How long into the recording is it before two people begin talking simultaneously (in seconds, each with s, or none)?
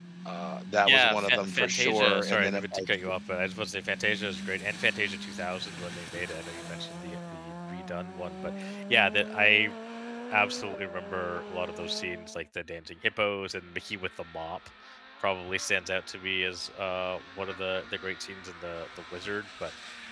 0.9 s